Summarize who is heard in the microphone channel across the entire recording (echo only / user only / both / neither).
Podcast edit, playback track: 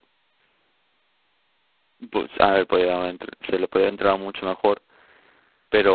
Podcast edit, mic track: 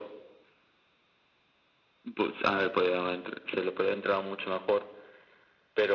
echo only